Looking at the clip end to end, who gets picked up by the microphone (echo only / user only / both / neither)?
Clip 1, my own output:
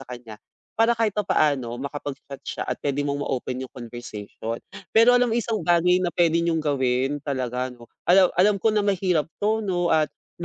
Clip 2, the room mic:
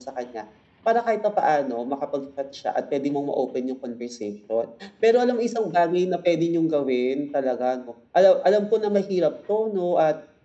echo only